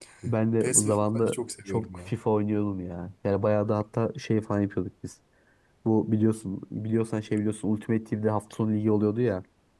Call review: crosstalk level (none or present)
present